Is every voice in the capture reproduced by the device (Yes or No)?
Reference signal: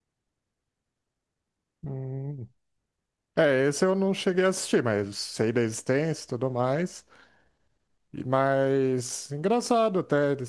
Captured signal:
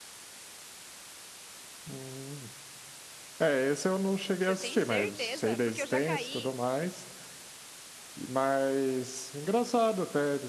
No